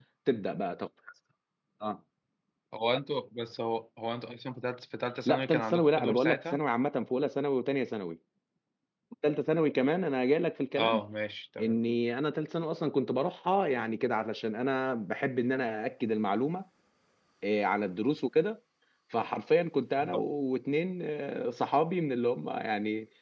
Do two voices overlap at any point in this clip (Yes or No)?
Yes